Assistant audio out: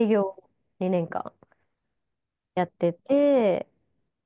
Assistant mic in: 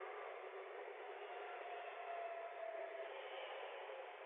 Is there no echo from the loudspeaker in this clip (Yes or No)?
Yes